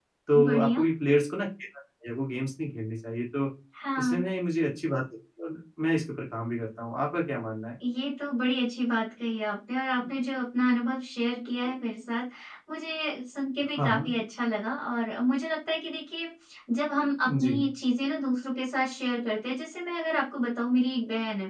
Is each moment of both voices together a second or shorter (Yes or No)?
Yes